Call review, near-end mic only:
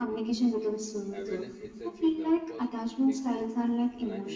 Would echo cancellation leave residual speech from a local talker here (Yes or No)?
Yes